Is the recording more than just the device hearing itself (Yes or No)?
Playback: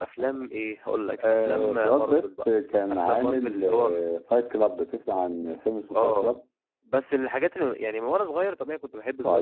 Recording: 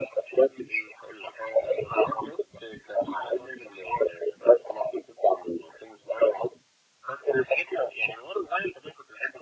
No